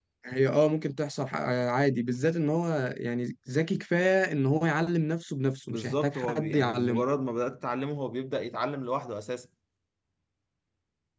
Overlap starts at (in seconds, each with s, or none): 5.7 s